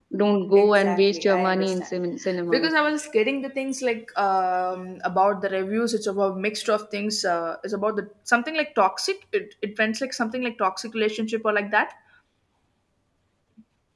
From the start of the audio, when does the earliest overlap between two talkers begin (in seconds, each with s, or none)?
0.6 s